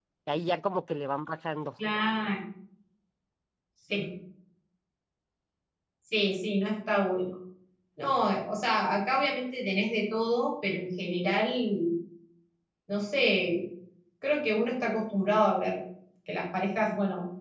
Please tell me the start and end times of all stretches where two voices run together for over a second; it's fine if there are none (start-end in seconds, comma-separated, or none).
none